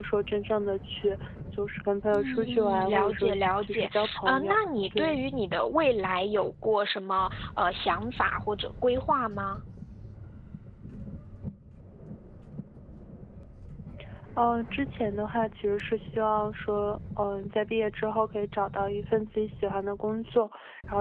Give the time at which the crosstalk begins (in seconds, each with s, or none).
2.1 s